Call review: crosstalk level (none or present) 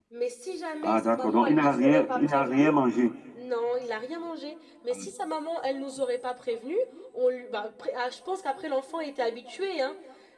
present